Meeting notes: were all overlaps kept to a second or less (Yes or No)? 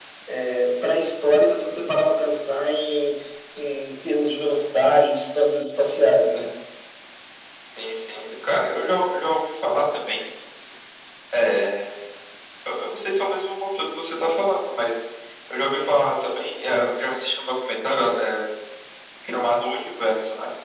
Yes